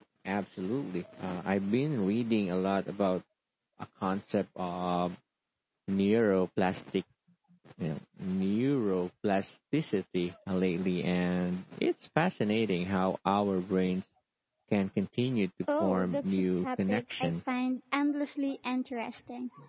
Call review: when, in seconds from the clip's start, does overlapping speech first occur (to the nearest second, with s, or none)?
16 s